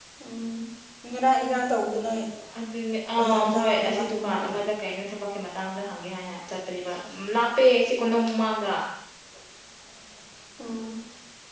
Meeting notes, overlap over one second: present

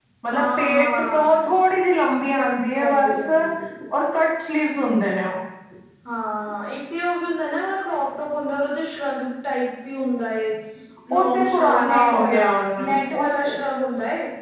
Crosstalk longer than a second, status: present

